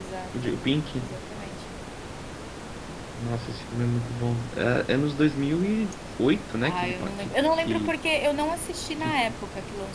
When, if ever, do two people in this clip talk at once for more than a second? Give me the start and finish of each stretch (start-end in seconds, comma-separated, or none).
6.6-7.9